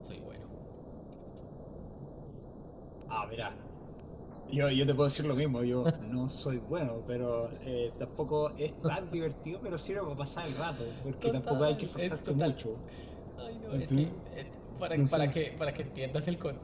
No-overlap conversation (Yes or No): No